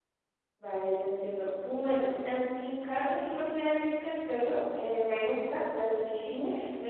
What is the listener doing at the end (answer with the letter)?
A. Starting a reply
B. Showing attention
B